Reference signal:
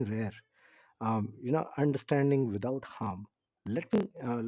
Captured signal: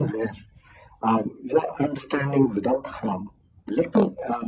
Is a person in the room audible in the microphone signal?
No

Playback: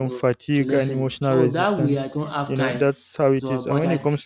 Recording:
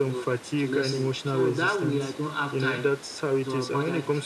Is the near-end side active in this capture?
No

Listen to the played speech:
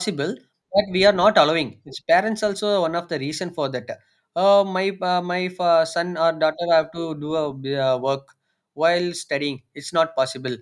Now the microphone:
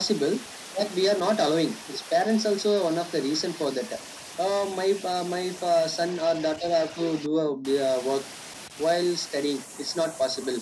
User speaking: No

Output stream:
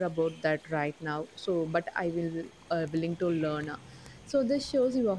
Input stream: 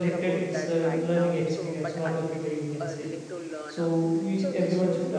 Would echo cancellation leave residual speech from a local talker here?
Yes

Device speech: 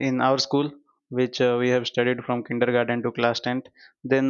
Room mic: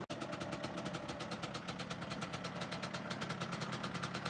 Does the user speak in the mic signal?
No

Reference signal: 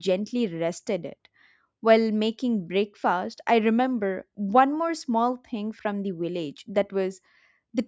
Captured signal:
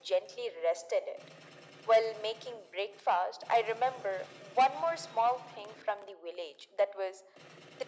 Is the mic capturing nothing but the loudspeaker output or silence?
Yes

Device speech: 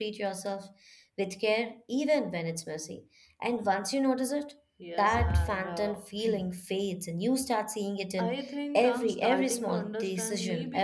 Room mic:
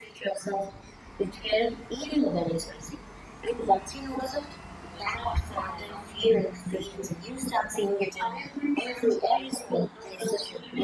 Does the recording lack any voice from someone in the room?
Yes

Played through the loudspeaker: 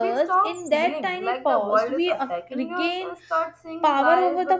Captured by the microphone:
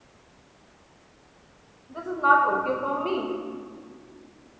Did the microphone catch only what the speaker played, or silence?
No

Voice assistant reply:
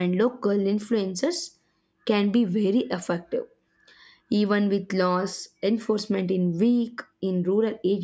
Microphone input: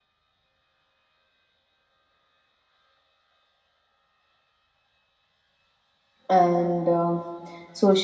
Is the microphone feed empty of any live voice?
No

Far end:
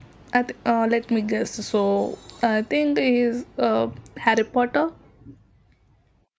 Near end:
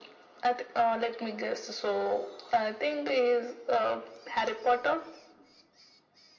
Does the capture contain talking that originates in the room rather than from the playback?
No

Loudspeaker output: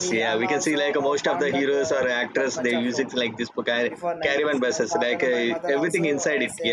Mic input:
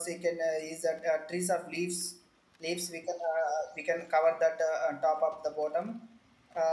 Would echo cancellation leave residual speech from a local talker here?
Yes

